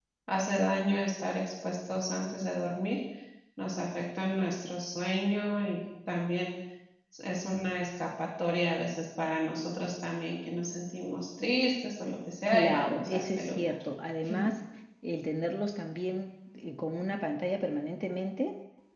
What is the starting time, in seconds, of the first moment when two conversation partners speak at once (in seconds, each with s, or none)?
12.5 s